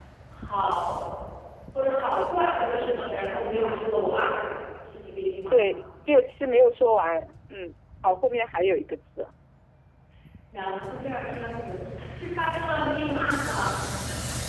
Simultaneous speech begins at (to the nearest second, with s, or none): none